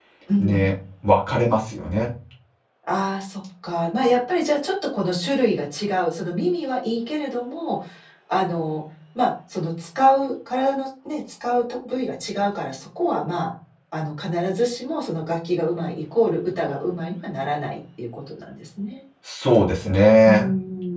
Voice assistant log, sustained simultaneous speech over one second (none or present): none